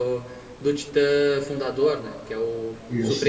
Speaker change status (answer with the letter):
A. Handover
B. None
B